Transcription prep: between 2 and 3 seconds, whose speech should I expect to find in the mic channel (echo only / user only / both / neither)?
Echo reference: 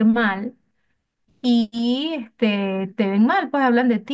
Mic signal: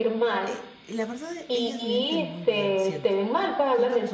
both